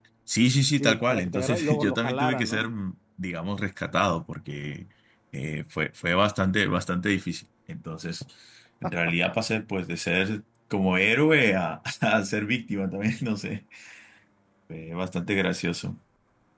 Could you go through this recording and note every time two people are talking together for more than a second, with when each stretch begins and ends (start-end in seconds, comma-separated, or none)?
0.8-2.7